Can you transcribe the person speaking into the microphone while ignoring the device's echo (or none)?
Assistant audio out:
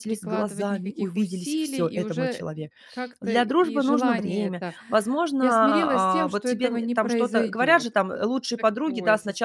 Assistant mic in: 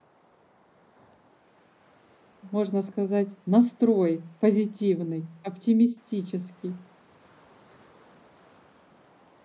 можно сказать, настрой позитивный, оптимистический.